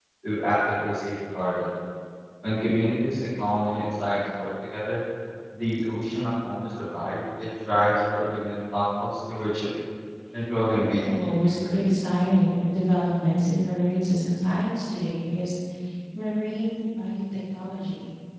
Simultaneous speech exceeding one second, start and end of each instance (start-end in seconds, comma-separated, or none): 10.6-12.0